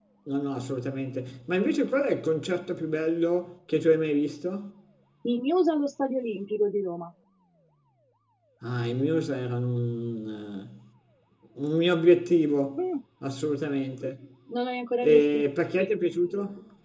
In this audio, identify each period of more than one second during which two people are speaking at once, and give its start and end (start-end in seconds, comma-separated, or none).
none